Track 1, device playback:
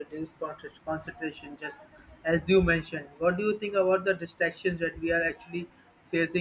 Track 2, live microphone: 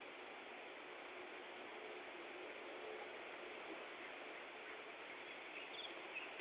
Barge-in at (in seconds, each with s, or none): none